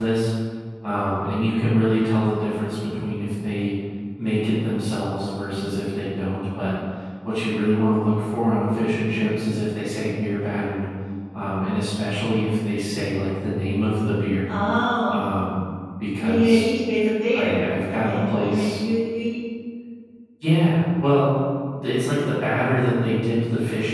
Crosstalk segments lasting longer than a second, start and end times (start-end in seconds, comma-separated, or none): 17.3-18.8